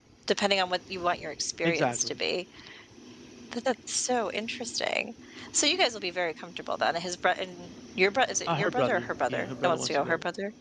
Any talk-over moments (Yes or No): Yes